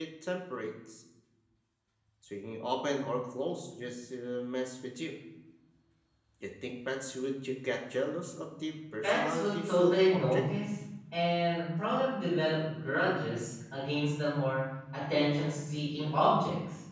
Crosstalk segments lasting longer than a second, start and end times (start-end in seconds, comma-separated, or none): 9.0-10.4